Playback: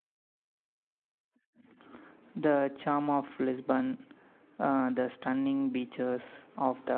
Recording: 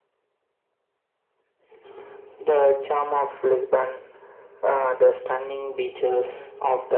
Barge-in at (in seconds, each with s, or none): none